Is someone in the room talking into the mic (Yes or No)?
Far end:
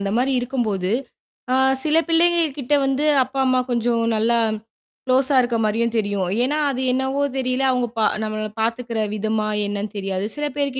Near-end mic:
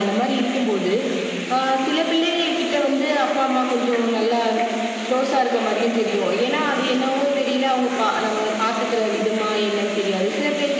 No